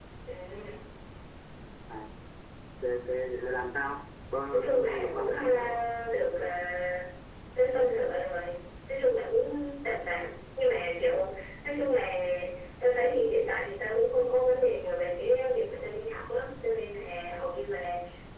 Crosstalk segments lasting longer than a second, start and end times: 4.5-5.8

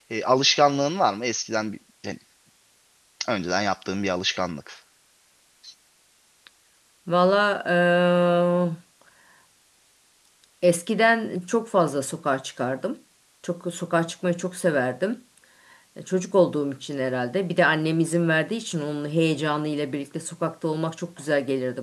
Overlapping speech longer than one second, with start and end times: none

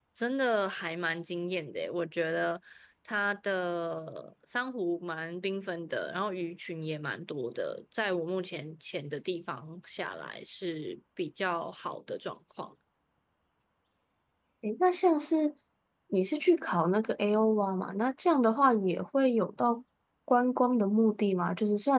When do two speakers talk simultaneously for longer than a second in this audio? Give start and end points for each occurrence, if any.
none

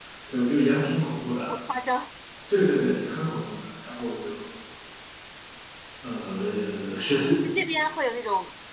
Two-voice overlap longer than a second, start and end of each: none

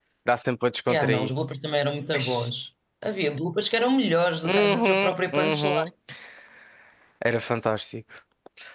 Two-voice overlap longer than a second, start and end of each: 4.4-5.9

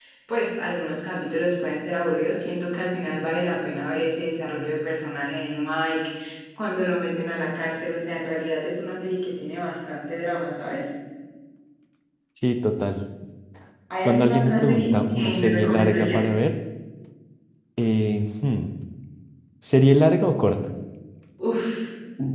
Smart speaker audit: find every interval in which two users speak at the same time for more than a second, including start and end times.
14.0-16.3

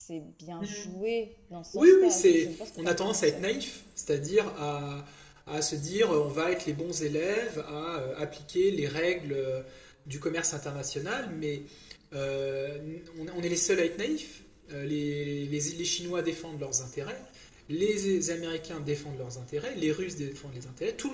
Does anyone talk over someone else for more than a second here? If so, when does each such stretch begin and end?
1.7-3.3

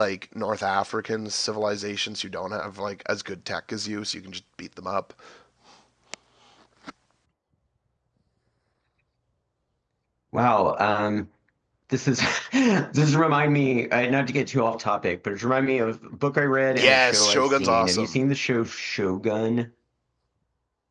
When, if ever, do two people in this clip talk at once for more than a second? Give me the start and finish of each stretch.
16.7-18.2

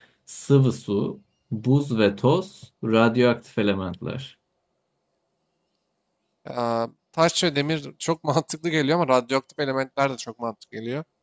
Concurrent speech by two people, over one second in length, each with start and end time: none

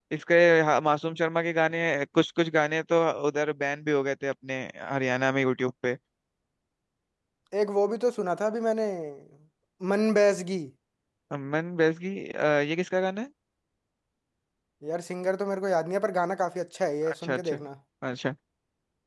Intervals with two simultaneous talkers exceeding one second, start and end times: none

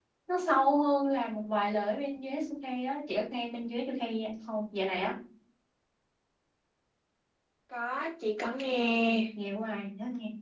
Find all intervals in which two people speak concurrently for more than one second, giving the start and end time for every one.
none

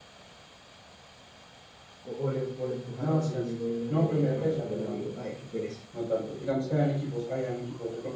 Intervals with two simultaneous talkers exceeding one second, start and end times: 3.0-5.1

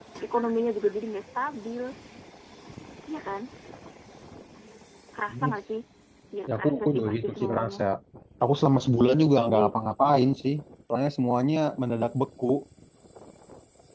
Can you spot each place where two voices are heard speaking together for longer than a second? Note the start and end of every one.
6.5-7.8

